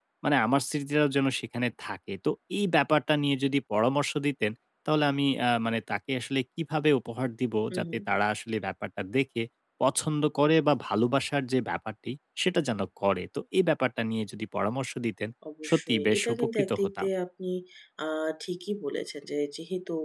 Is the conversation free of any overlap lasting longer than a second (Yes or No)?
No